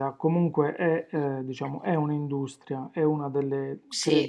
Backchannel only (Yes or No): Yes